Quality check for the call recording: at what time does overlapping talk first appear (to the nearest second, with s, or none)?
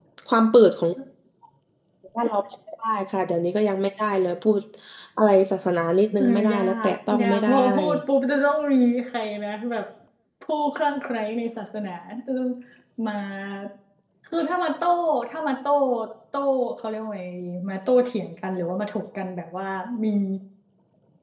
6 s